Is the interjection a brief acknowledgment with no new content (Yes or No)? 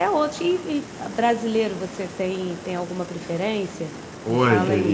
No